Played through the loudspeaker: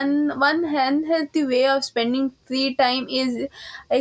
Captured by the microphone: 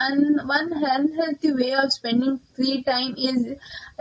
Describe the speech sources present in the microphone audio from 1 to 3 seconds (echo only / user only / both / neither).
echo only